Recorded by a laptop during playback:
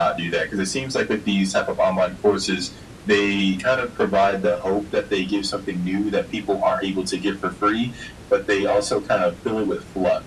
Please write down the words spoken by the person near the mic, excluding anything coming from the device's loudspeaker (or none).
none